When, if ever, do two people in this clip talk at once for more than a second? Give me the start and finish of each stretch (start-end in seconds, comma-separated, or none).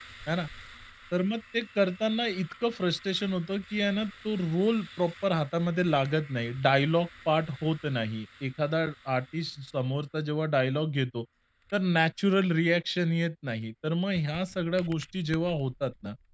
none